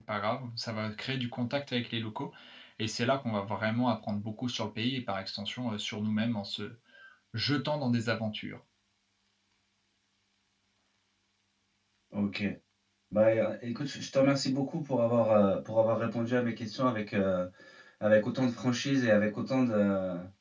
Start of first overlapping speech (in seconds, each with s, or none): none